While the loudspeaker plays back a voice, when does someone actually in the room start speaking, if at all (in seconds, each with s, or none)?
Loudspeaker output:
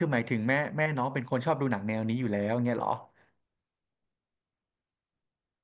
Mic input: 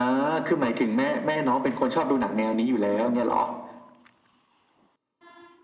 none